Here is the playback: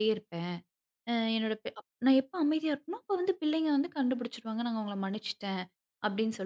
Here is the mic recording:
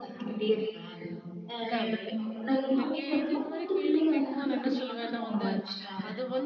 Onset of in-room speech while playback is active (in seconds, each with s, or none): 1.6 s